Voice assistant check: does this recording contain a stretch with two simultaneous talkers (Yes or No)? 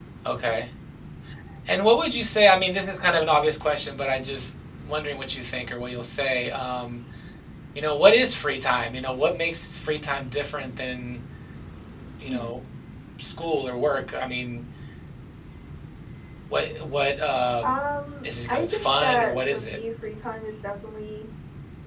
Yes